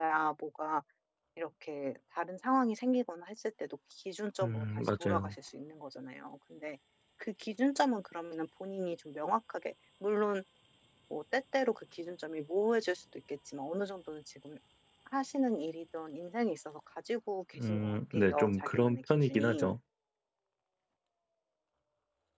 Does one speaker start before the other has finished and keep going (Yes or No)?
Yes